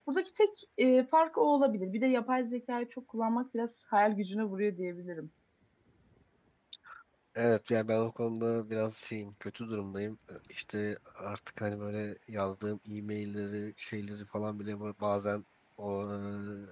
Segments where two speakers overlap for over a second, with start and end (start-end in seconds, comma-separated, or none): none